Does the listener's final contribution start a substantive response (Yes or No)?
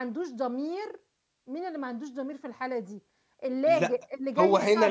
Yes